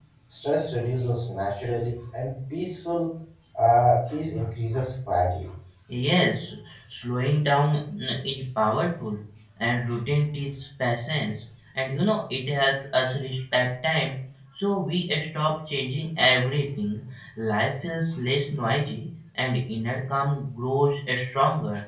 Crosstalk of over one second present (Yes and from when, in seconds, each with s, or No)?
No